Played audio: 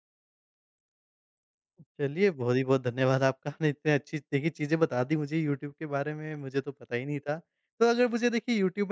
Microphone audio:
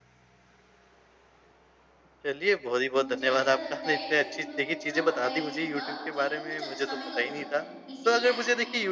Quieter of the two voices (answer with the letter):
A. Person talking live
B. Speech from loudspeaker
A